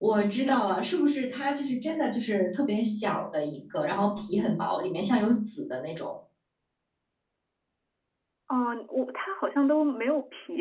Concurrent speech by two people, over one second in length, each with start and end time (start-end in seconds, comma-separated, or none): none